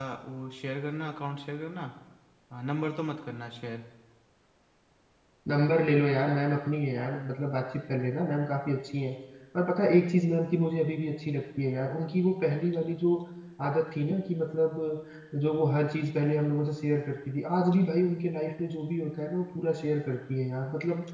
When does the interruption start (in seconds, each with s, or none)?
none